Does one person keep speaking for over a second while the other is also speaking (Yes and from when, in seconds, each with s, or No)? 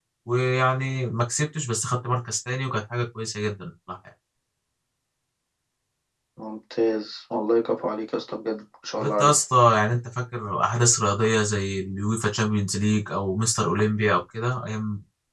No